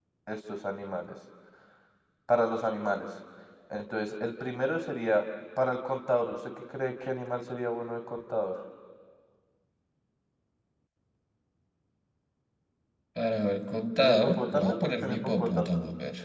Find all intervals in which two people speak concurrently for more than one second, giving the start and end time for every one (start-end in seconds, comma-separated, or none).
14.0-15.7